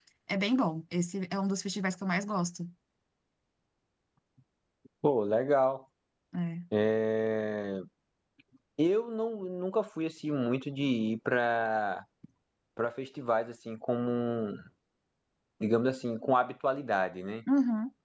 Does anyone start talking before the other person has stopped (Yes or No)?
No